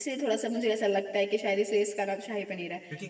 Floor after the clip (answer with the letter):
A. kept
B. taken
B